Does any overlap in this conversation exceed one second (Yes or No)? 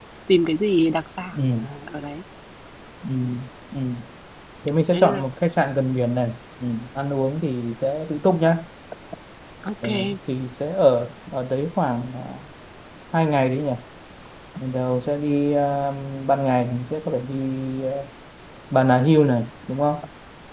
No